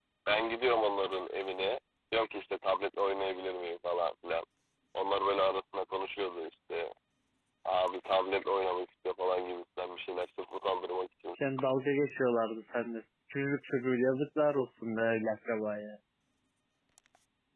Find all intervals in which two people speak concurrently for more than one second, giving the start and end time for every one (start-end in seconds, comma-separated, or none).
none